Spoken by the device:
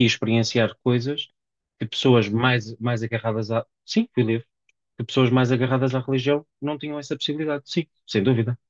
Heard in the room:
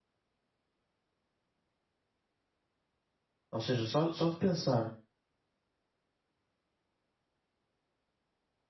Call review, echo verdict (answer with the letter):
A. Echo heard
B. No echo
B